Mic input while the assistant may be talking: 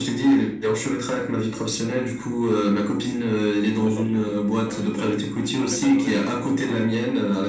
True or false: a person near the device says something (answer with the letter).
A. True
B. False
A